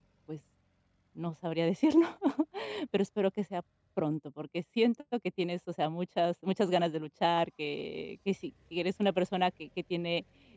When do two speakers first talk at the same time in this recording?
none

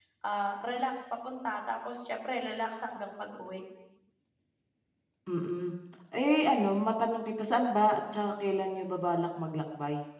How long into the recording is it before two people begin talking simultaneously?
none

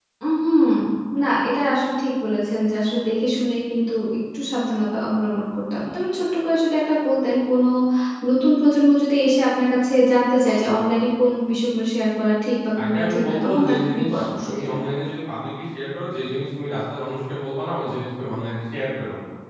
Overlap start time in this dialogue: 13 s

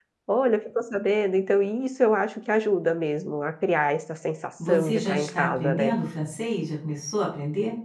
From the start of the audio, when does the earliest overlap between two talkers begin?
5 s

